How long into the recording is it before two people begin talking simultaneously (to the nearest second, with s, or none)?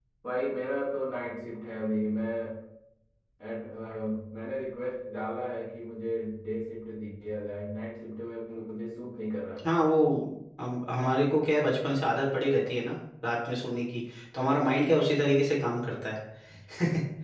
none